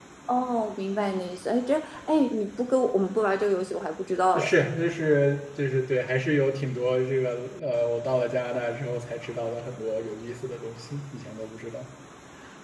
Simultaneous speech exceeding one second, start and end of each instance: none

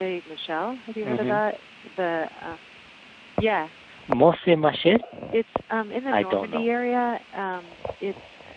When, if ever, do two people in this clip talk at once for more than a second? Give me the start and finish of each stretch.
none

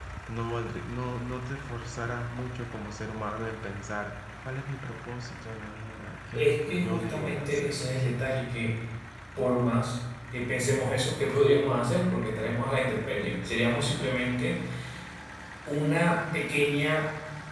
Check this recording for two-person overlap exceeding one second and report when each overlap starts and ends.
6.3-7.8

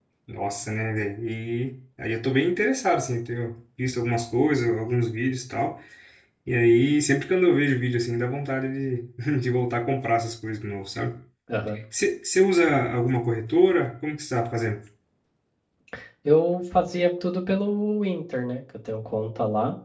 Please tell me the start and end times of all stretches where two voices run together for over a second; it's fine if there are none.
none

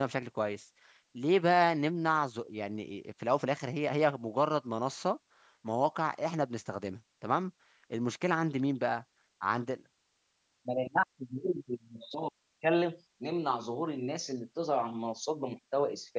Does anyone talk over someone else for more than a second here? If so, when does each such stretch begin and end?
none

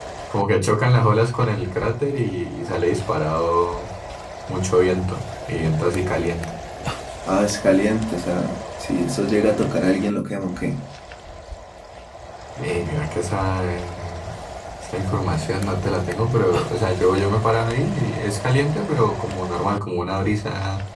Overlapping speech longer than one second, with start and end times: none

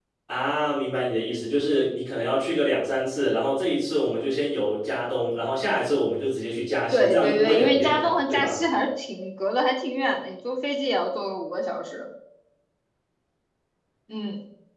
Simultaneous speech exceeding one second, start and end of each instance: 6.9-8.6

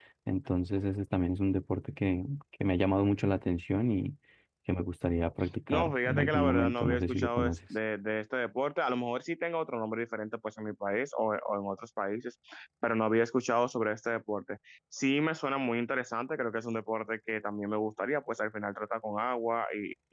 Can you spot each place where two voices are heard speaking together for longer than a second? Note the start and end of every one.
5.7-7.6

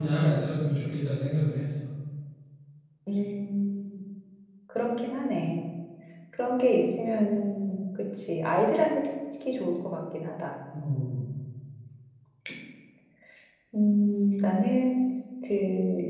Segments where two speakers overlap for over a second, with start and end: none

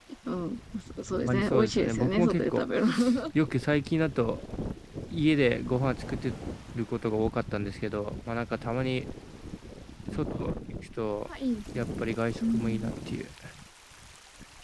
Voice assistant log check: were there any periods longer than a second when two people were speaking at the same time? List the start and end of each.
1.2-2.6

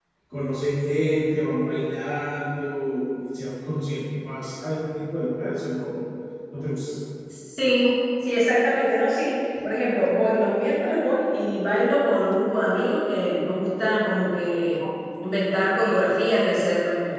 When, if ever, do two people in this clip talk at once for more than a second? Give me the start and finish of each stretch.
none

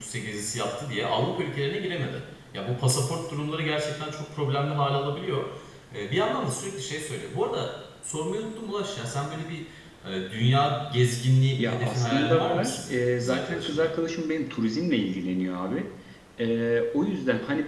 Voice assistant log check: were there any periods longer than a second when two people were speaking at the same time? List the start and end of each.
11.6-13.9

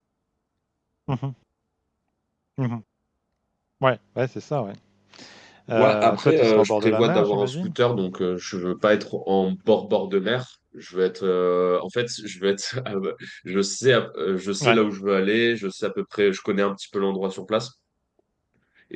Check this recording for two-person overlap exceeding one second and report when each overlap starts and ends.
5.7-7.7

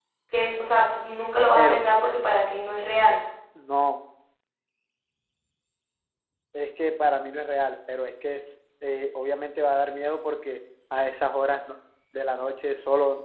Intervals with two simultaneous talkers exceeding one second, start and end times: none

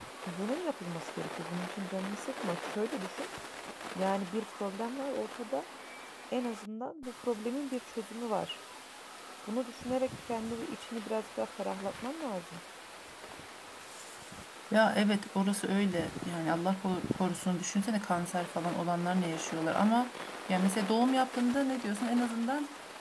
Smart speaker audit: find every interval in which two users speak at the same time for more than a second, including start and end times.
none

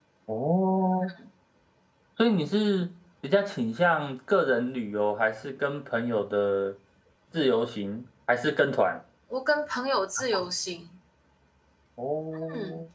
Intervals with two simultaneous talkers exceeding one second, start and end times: none

